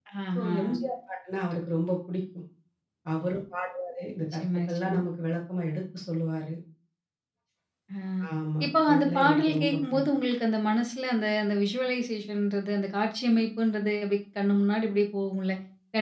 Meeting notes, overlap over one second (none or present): present